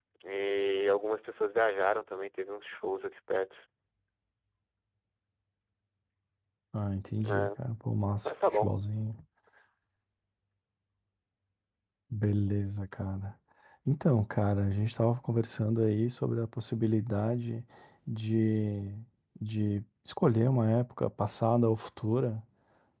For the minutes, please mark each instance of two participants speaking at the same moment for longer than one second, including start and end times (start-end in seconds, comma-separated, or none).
none